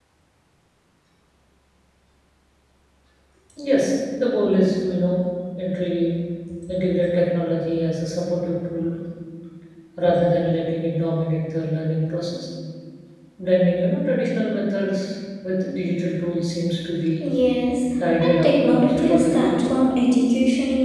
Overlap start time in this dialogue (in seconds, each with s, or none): 18.2 s